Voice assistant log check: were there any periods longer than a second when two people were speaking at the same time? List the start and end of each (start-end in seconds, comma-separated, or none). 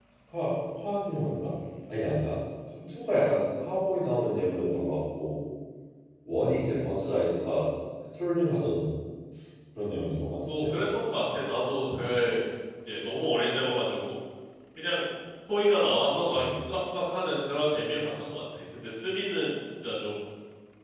none